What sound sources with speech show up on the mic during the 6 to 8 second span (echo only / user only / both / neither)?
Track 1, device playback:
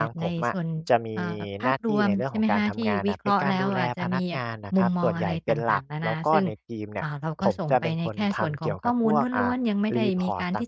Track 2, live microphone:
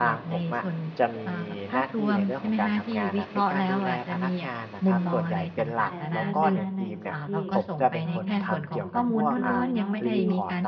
both